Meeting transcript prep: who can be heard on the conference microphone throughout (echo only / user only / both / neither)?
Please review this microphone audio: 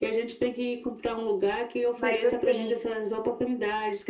both